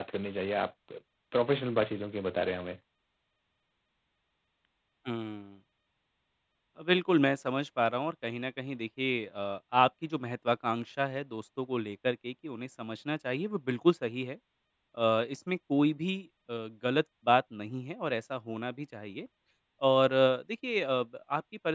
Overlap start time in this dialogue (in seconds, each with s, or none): none